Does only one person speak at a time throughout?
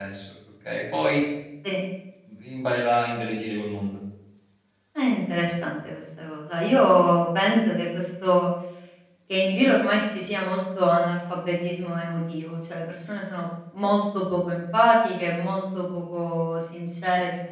Yes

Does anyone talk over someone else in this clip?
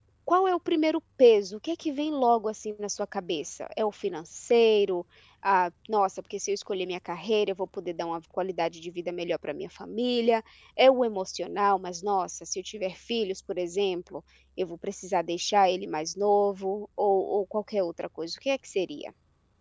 No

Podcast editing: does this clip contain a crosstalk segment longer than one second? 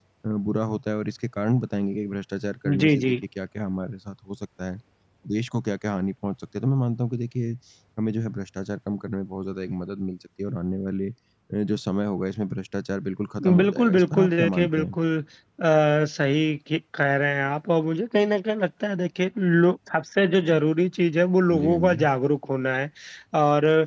Yes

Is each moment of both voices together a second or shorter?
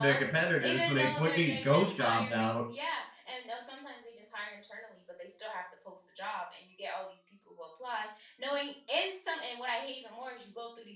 No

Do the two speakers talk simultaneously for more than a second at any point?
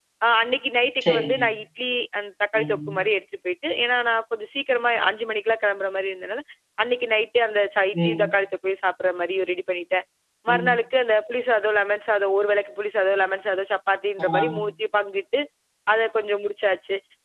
No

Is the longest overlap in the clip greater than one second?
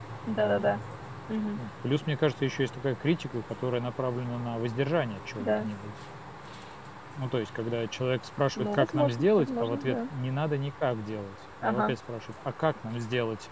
Yes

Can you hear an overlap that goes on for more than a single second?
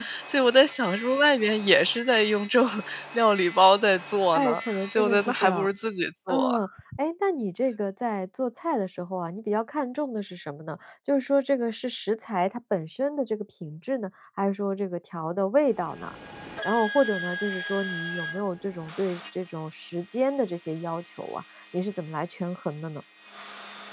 Yes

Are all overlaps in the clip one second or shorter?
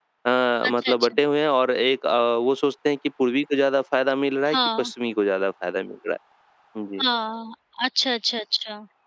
Yes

